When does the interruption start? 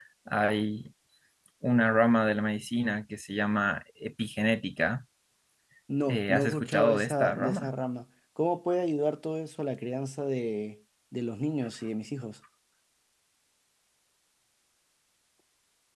6.1 s

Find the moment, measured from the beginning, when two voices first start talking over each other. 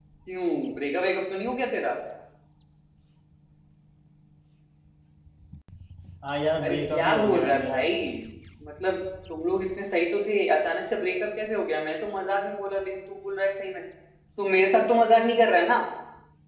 6.6 s

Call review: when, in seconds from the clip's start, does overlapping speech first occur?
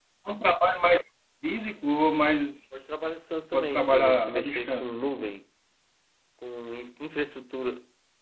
2.7 s

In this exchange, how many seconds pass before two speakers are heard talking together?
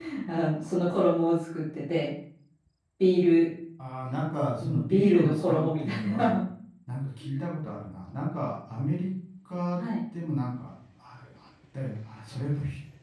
4.6 s

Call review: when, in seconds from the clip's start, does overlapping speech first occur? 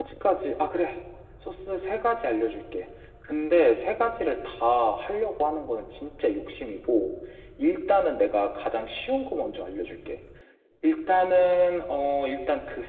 none

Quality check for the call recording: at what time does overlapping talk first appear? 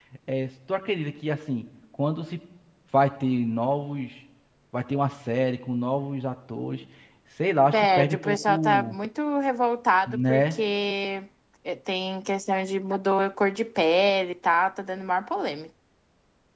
7.7 s

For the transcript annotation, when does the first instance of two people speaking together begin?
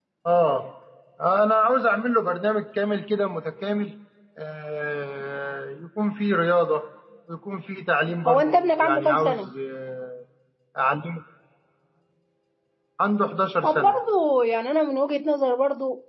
8.3 s

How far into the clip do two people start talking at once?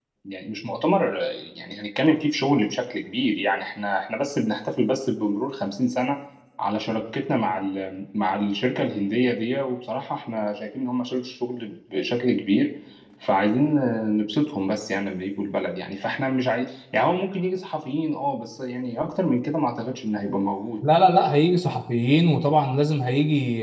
none

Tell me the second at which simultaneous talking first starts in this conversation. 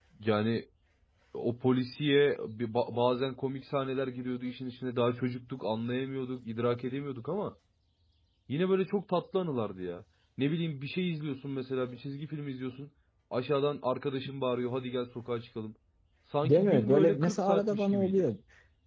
16.4 s

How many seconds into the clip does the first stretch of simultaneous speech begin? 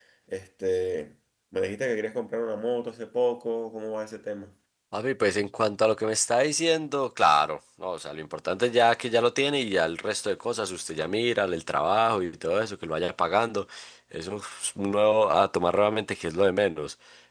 none

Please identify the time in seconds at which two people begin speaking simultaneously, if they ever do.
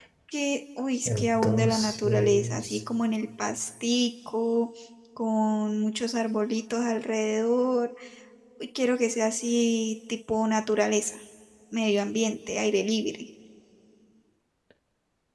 1.1 s

